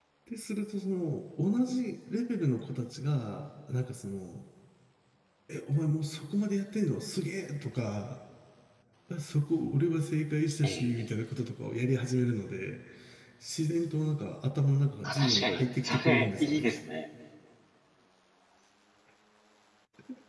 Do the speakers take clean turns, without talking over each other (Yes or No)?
No